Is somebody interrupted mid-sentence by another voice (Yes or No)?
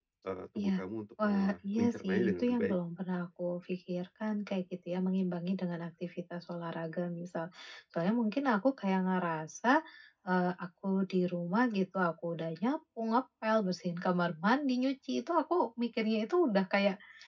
Yes